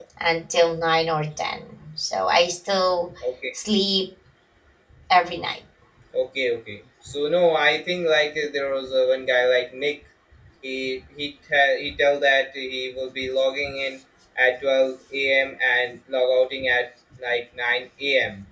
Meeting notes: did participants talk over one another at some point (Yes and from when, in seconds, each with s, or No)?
No